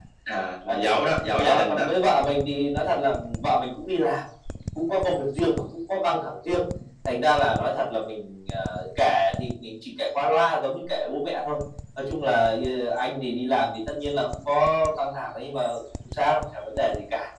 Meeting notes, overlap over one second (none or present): none